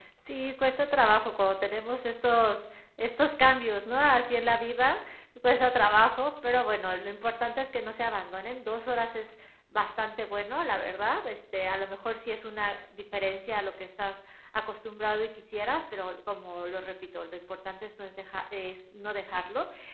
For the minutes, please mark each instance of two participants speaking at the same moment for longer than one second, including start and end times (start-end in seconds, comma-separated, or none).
none